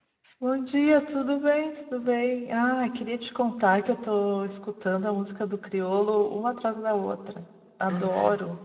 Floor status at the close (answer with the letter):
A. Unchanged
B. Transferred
B